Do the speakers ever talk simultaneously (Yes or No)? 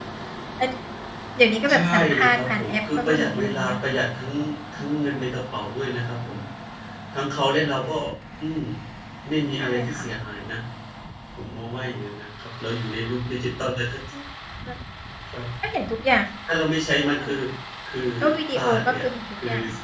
Yes